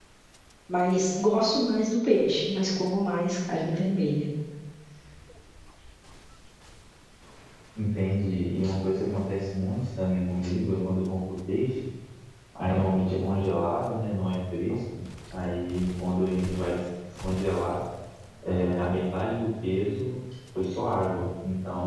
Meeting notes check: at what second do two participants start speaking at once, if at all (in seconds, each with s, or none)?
none